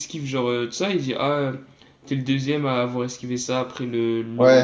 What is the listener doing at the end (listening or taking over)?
taking over